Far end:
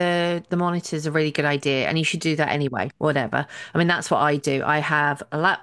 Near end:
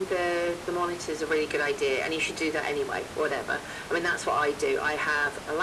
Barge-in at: none

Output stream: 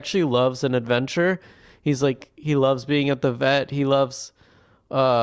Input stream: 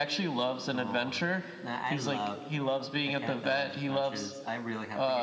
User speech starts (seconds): 0.7 s

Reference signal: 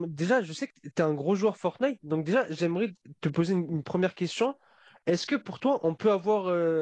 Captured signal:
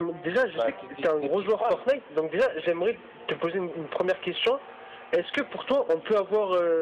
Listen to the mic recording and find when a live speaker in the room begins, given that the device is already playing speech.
0.5 s

